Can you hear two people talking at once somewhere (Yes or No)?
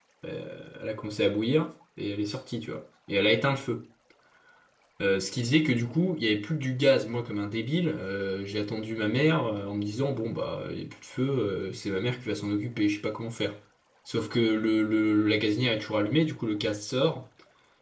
No